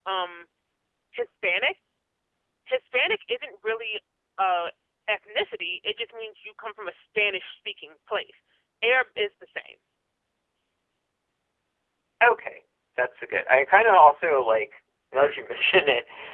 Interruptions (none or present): none